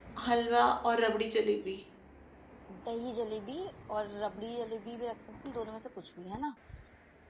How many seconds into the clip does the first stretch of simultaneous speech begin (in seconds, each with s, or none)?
none